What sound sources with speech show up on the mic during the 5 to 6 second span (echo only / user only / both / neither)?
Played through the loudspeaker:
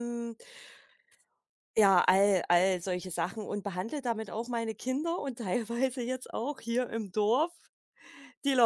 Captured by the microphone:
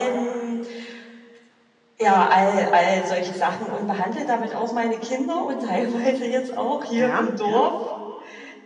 echo only